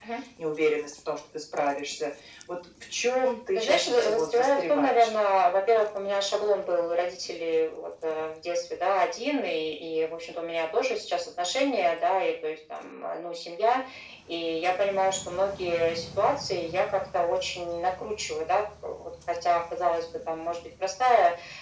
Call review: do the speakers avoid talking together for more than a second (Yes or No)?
No